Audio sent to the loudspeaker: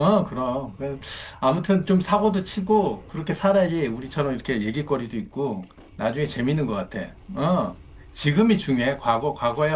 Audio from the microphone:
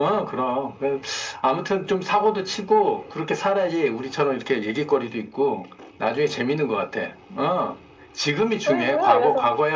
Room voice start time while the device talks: 8.6 s

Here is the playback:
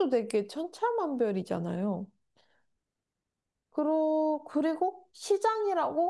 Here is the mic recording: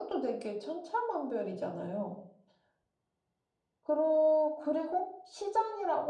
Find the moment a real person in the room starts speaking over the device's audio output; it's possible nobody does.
none

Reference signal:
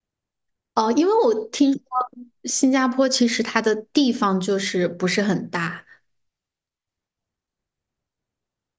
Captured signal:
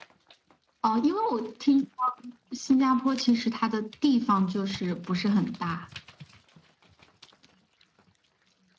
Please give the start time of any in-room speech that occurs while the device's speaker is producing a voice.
none

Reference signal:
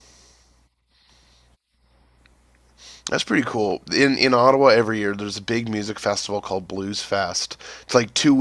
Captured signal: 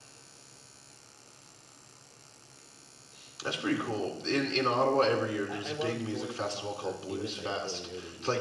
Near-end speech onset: 5.5 s

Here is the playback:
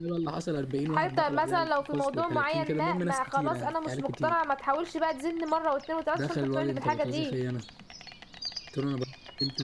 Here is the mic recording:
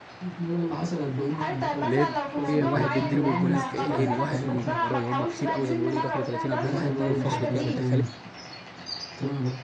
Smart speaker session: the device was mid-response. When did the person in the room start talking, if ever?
1.8 s

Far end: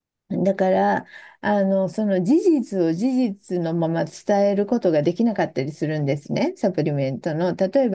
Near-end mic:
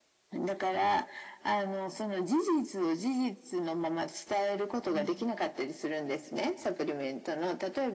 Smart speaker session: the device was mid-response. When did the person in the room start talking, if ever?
4.9 s

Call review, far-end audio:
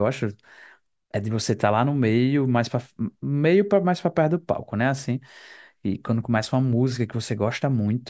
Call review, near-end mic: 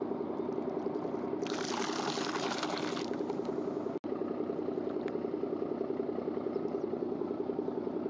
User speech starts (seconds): none

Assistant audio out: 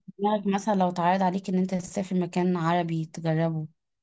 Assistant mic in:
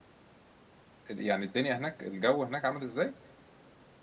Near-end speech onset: 1.1 s

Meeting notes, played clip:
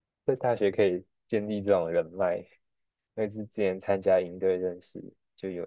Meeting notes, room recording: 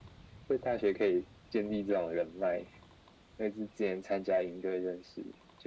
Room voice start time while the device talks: none

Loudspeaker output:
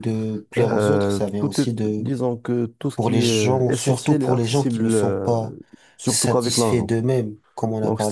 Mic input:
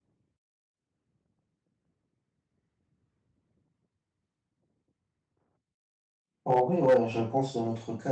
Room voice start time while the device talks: 6.4 s

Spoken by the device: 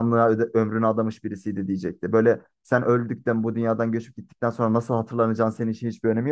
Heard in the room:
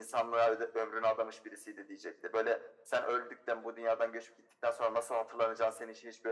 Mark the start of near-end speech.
none

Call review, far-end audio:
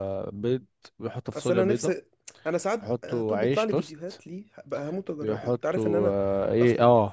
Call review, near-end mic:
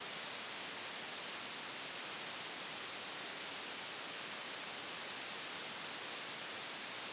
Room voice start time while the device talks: none

